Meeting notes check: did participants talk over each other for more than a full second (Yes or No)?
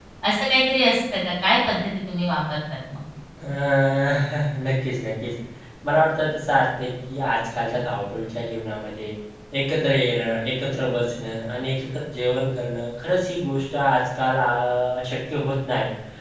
No